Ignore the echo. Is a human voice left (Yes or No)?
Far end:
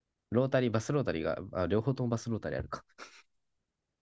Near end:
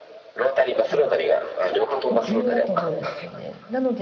Yes